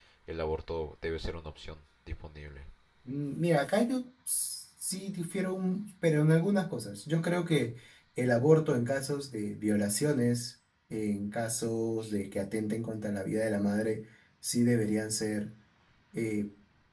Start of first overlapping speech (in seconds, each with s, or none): none